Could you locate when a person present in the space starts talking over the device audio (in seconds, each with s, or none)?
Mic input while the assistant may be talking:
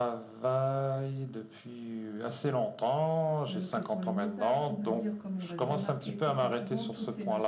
3.5 s